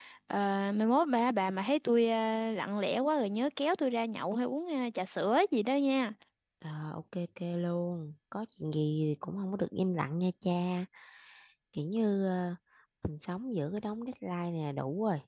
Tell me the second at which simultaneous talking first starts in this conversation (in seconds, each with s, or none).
none